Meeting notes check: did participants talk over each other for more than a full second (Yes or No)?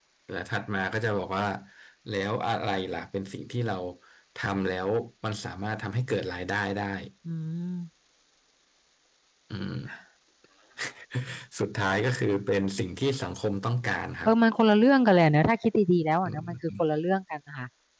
No